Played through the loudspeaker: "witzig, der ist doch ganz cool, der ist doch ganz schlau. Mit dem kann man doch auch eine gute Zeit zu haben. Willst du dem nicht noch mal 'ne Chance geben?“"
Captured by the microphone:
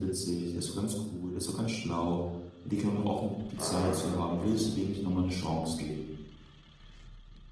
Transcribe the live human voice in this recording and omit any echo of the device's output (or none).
Ähm, und